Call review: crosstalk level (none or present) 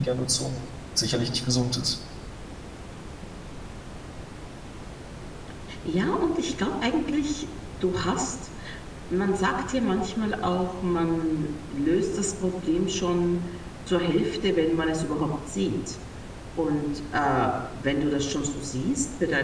none